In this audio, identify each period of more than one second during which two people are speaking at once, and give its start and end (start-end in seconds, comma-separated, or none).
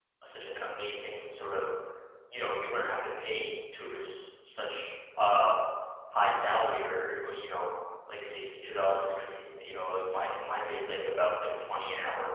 none